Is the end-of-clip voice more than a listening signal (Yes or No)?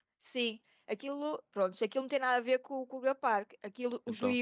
No